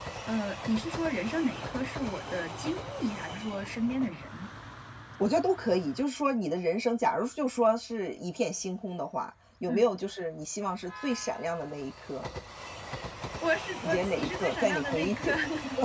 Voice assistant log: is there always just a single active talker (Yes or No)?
No